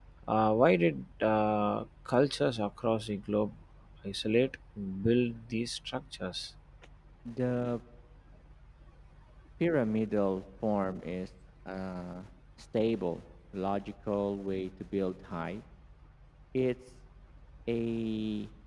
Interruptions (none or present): none